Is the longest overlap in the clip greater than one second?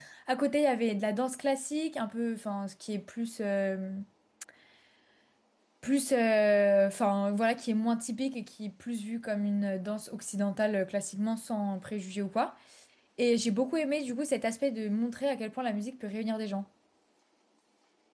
No

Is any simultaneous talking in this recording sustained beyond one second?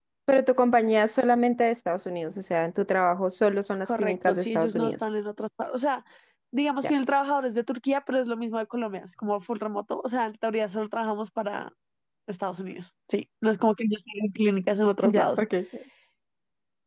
Yes, from 3.8 s

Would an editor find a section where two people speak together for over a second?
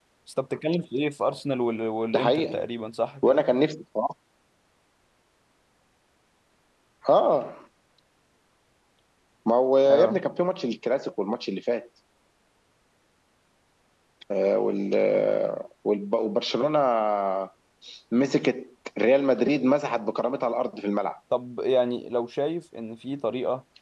No

